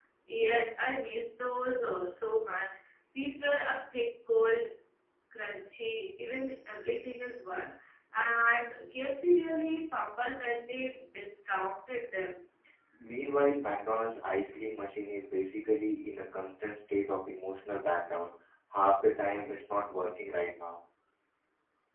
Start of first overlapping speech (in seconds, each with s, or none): none